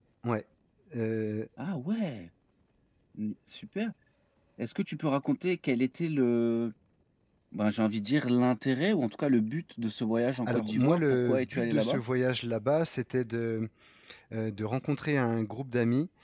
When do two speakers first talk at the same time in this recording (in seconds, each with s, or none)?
10.2 s